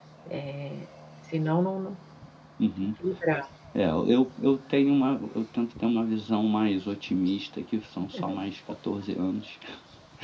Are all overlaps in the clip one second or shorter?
Yes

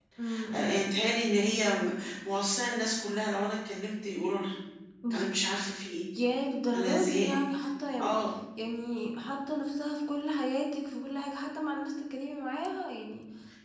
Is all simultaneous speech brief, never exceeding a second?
Yes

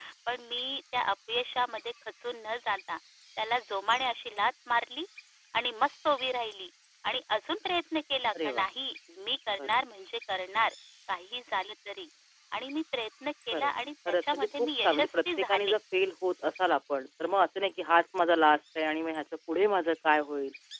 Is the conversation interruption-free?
No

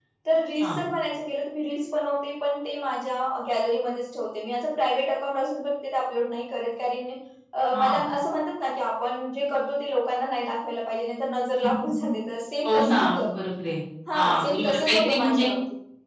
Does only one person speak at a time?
No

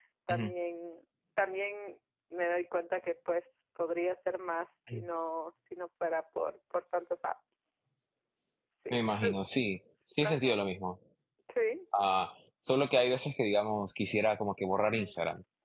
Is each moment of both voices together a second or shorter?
Yes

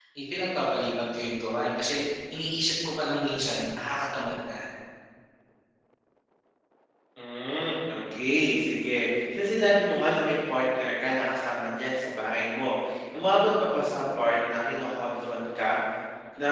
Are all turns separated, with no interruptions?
Yes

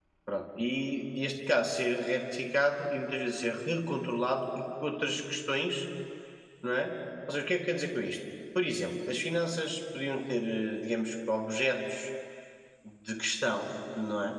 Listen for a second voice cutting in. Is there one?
No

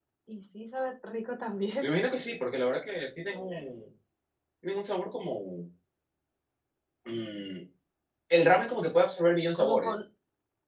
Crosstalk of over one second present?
No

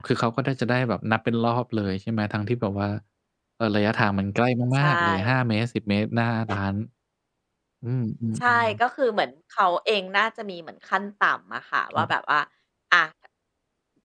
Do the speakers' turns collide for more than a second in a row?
No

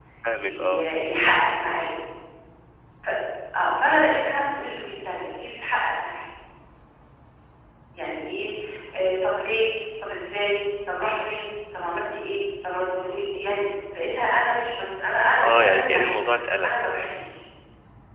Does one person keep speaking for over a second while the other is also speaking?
Yes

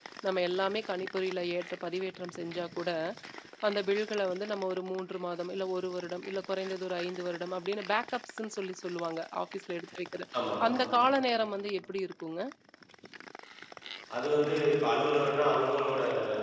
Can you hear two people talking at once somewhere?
No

